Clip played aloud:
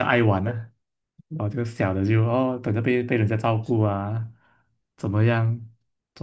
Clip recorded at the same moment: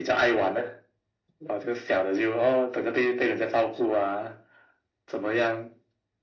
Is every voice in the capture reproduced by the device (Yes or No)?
Yes